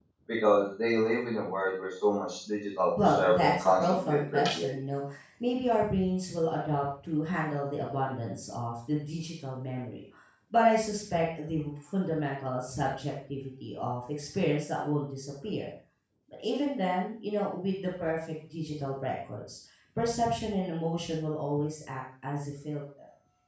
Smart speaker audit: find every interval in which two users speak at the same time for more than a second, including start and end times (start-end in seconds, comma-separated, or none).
3.0-4.8